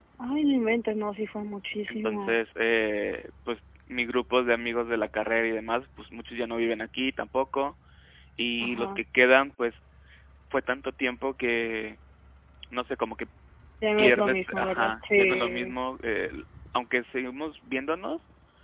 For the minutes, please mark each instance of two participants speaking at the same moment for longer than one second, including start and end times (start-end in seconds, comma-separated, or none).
14.0-15.7